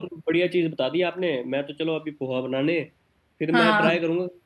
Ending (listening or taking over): listening